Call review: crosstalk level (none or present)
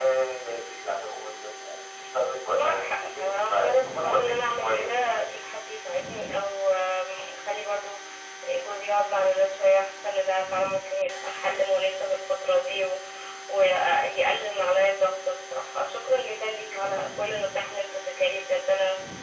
present